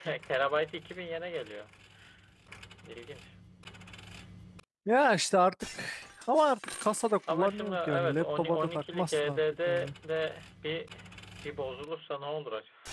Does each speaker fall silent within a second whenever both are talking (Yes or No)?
No